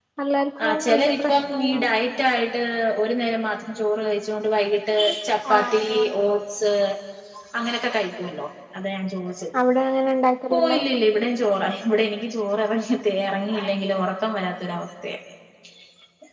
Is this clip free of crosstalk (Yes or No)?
No